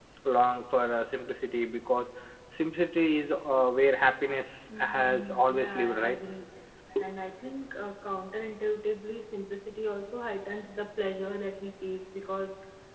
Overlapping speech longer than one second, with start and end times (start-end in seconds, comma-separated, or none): 4.8-6.2